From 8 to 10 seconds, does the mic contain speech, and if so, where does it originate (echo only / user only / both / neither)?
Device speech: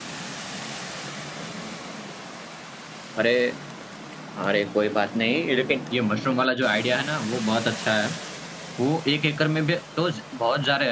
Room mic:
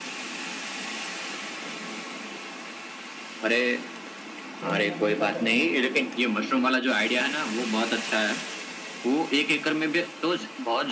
echo only